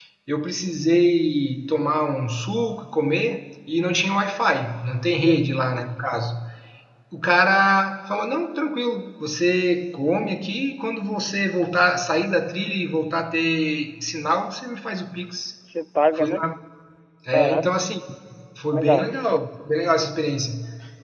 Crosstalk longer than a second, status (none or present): none